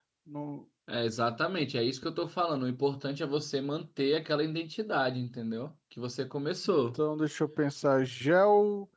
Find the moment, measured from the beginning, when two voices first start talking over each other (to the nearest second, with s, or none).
none